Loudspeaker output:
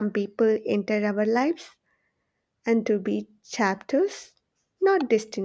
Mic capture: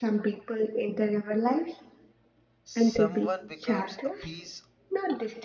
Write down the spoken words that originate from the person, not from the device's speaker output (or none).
someone becomes a piece